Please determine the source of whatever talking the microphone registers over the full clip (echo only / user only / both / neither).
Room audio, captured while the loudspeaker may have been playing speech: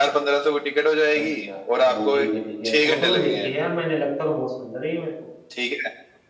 both